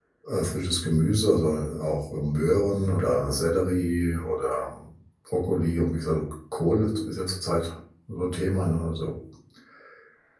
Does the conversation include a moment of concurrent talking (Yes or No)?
No